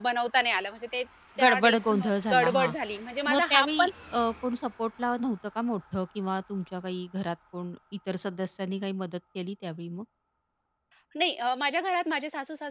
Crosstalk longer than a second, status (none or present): present